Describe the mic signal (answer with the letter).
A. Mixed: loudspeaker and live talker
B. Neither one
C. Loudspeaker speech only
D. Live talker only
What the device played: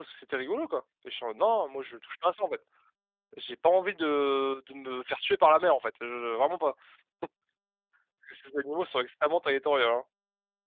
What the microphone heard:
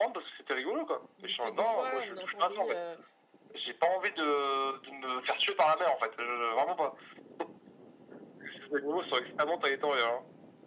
A